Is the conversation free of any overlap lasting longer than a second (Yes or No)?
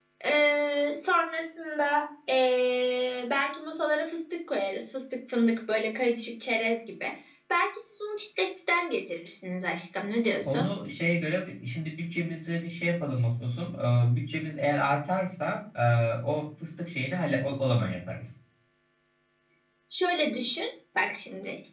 Yes